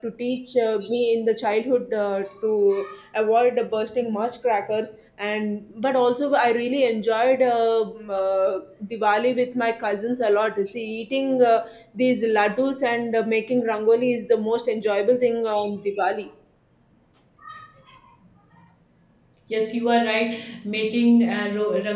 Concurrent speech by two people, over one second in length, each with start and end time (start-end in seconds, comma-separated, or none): none